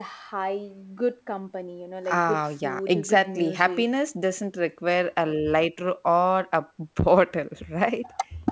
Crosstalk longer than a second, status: present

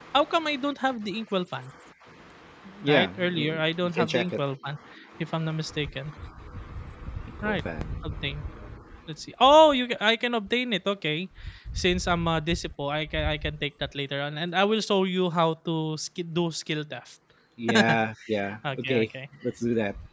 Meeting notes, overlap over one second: present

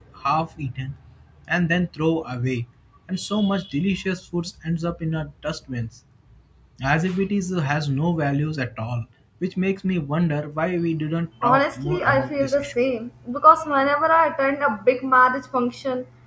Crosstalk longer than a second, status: present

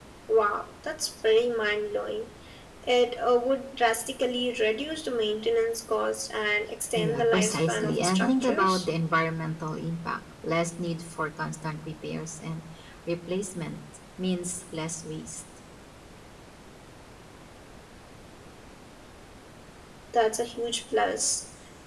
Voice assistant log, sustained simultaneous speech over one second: present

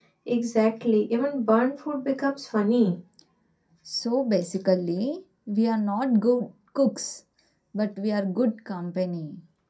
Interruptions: none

